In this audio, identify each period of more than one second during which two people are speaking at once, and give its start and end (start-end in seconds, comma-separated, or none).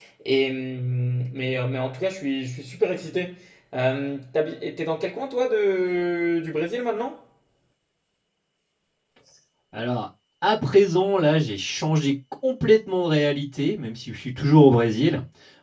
none